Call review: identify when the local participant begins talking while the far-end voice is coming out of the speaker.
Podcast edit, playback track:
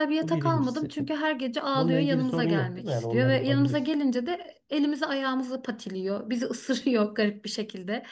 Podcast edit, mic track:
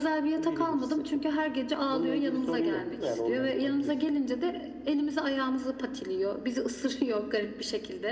none

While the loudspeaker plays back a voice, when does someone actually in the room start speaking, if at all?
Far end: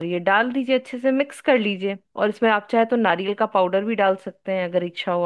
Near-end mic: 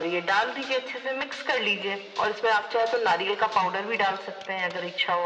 none

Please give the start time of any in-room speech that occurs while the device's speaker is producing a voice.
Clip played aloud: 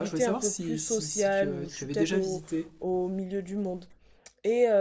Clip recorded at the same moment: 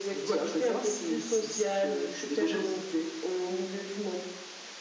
none

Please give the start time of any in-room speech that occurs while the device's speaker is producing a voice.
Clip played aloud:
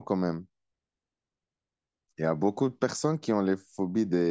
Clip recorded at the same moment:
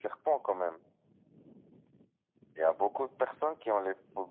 none

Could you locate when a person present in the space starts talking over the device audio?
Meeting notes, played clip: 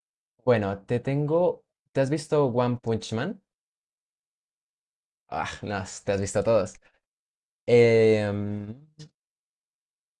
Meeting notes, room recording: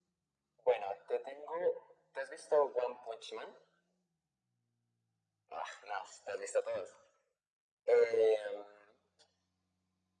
none

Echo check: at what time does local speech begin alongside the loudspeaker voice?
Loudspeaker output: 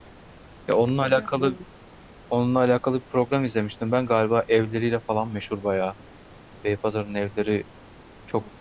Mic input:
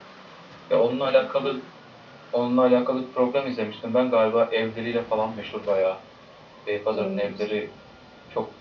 6.9 s

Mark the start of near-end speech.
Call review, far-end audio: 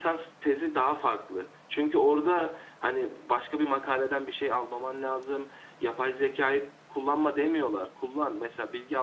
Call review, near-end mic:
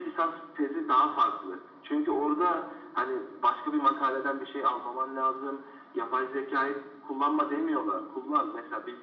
none

